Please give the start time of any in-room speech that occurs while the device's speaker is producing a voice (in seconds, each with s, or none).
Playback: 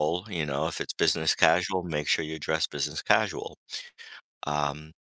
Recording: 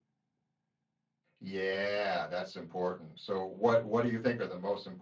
1.4 s